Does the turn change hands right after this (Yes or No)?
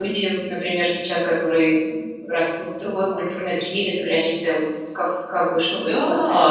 Yes